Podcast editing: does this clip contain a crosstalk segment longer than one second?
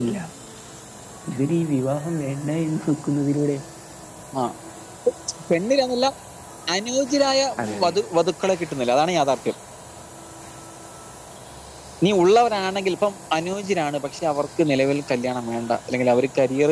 No

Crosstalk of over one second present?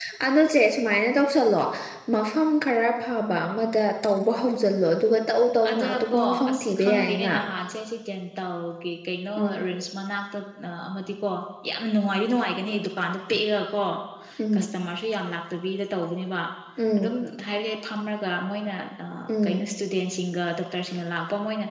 Yes, from 5.7 s

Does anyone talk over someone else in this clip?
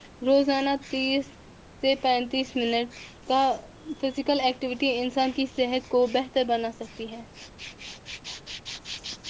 No

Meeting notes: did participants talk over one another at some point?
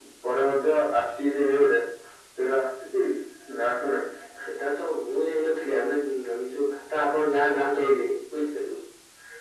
No

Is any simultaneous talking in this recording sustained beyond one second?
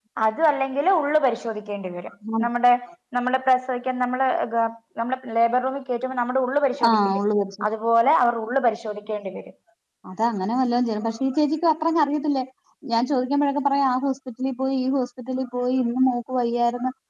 No

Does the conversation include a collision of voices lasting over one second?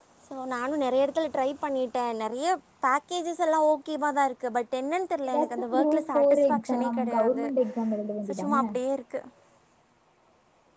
Yes, from 5.3 s

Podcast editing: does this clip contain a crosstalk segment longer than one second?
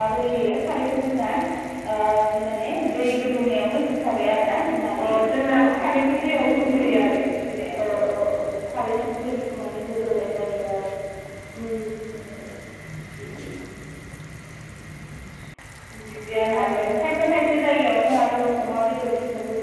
No

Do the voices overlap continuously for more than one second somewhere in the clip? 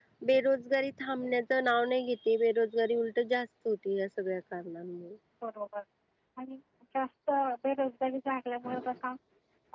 No

